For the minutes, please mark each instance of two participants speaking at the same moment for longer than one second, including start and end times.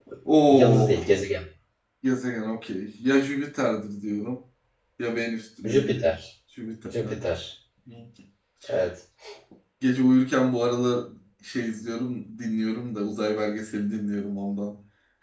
none

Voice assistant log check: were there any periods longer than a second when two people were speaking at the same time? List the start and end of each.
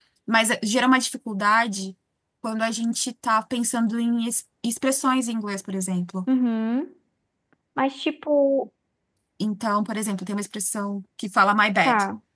none

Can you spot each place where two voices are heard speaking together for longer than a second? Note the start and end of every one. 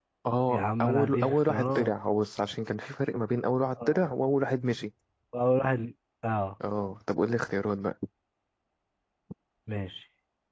0.5-1.9

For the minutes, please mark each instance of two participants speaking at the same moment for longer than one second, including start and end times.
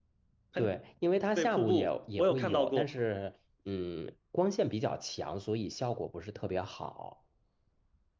1.4-2.8

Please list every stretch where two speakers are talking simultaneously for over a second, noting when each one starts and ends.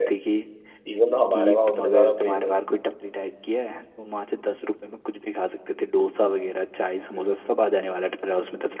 1.3-2.5

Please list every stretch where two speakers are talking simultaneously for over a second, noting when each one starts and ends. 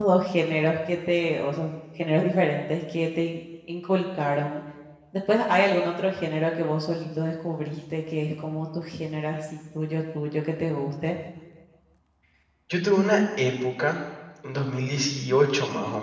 none

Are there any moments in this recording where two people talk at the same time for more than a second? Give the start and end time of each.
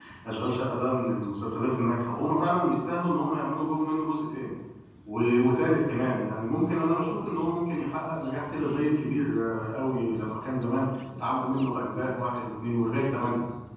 none

